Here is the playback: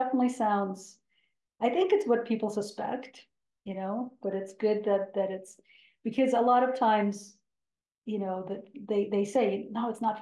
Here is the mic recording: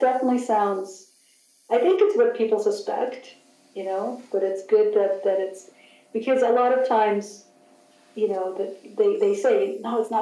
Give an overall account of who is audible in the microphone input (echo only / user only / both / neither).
echo only